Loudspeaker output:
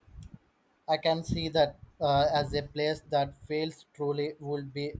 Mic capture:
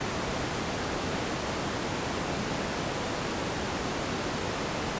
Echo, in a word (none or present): none